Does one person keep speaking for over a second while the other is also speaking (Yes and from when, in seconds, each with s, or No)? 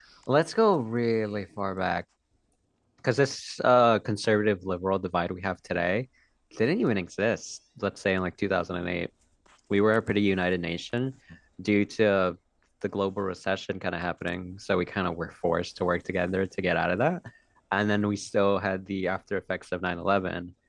No